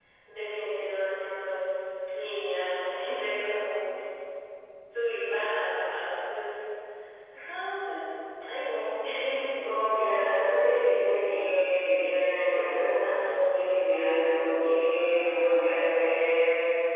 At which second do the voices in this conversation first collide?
none

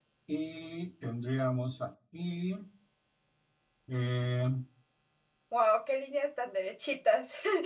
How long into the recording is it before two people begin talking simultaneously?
none

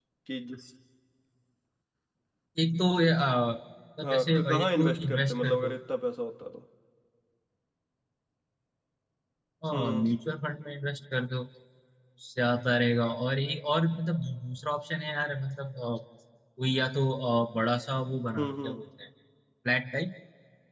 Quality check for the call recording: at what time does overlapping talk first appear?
4.0 s

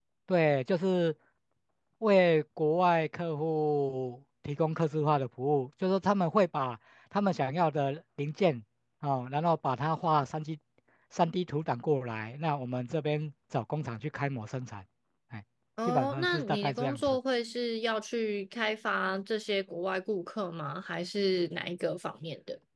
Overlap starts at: 15.9 s

